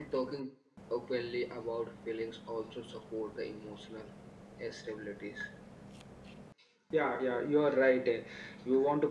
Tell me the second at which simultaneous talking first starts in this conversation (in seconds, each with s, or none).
none